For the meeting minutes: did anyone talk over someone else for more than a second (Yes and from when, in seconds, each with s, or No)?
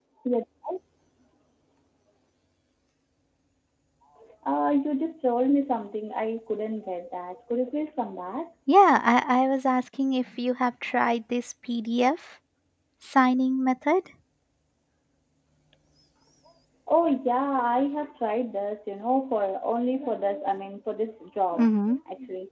No